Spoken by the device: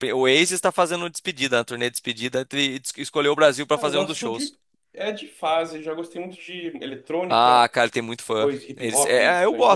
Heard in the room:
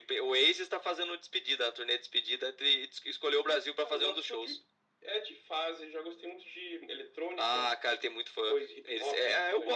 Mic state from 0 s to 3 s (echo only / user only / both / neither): echo only